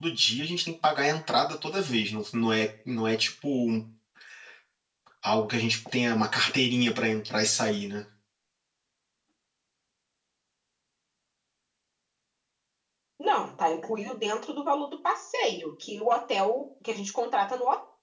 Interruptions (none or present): none